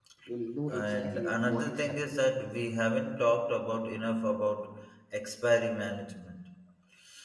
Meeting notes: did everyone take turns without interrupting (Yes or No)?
No